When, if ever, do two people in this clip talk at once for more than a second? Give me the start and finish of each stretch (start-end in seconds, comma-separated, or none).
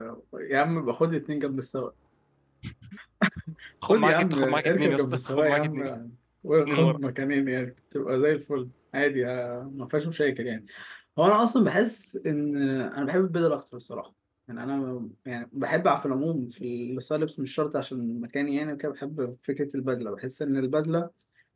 3.9-5.8